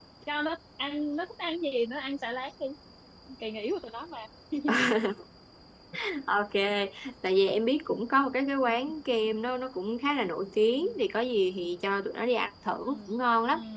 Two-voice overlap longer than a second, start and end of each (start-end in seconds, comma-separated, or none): none